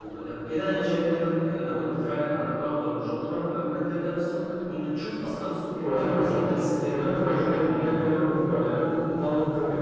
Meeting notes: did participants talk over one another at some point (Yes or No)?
Yes